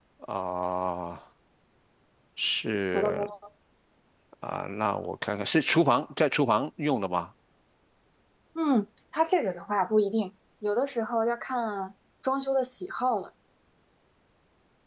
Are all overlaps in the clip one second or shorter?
Yes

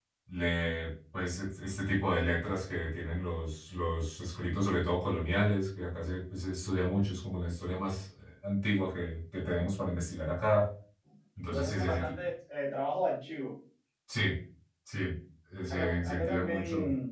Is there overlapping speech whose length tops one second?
Yes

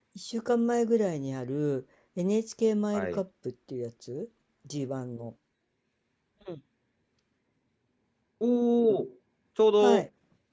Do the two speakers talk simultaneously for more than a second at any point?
No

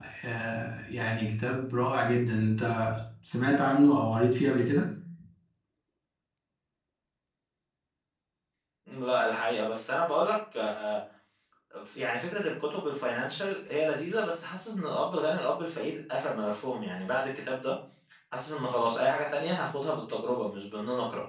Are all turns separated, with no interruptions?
Yes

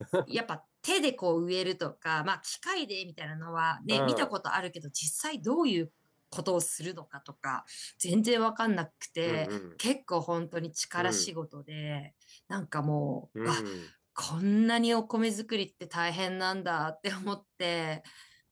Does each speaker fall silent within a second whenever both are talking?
Yes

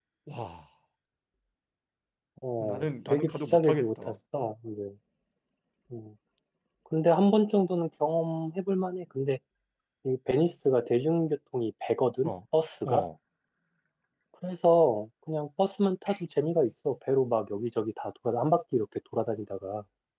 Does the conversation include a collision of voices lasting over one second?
Yes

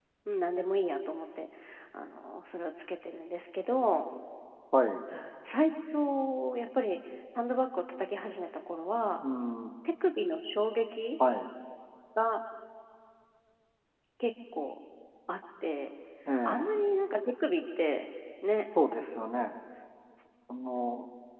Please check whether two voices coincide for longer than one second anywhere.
No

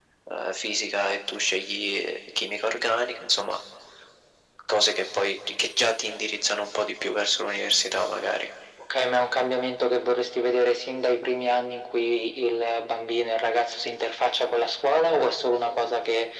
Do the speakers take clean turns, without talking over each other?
Yes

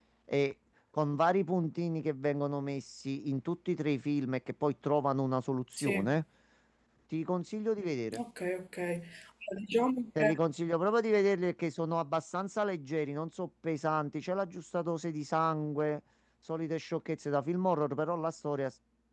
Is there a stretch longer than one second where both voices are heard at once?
No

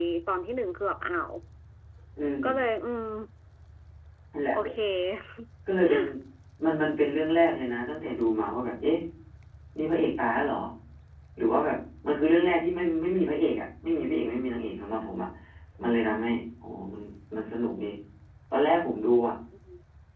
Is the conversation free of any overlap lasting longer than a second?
Yes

